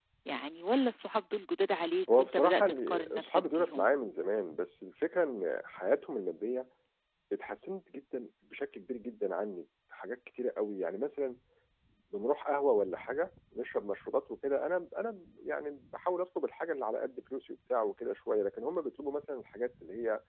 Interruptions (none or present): present